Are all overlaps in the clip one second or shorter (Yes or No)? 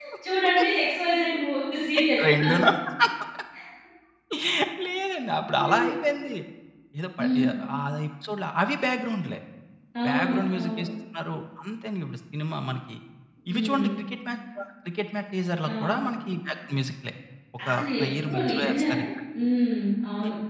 No